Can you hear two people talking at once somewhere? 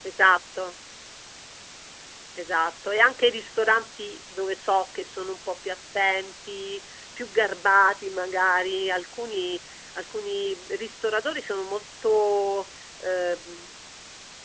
No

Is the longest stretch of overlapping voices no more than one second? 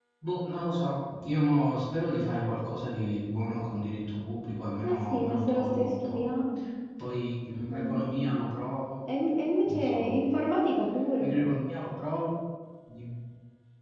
No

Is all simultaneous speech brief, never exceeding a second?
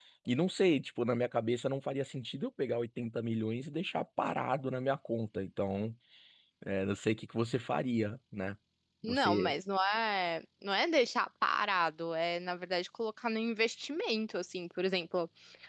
Yes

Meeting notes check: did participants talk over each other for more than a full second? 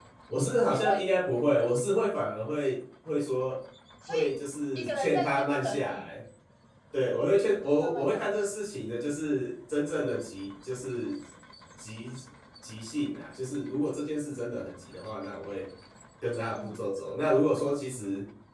Yes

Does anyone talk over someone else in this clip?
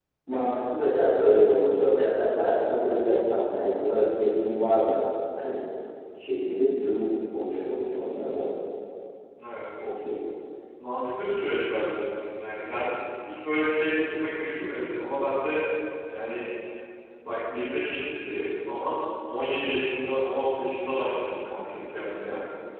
No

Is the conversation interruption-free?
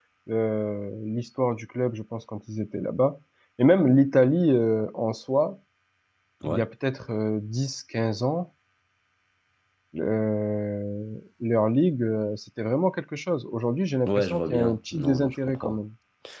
No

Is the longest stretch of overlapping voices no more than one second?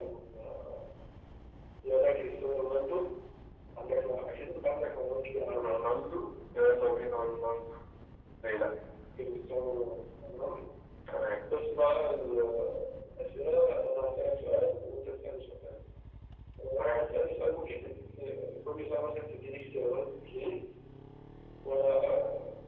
Yes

